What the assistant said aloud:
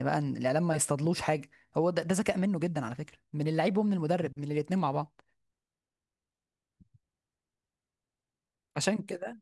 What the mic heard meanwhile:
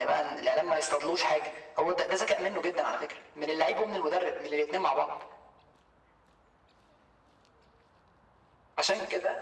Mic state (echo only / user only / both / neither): echo only